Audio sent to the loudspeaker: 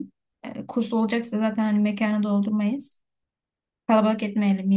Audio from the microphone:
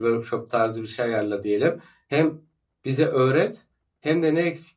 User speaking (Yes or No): Yes